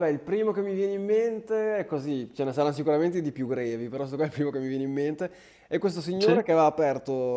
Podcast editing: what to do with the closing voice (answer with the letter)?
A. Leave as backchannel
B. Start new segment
A